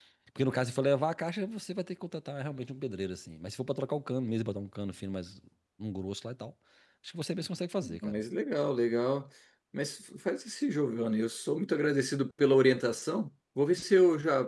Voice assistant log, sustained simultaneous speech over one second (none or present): none